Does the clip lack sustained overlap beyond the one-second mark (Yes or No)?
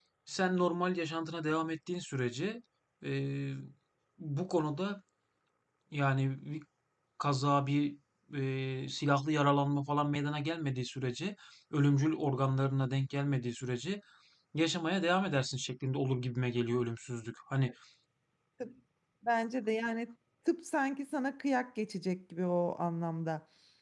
Yes